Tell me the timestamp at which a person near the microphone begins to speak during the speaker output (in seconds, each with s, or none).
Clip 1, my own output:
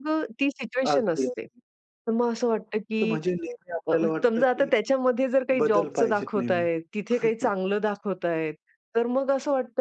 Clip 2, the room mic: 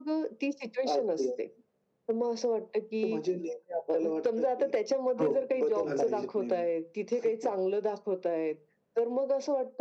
5.2 s